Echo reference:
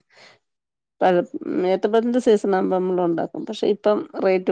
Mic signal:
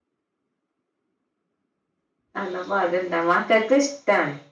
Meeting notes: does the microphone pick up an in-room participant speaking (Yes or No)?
Yes